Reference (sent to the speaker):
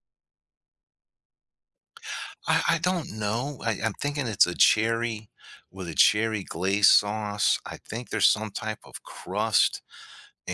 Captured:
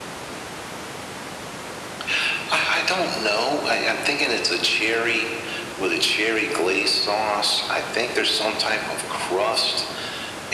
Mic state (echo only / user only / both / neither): echo only